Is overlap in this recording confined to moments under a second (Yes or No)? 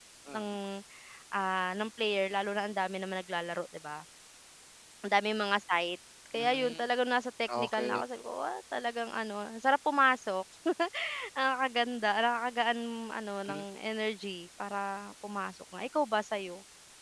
Yes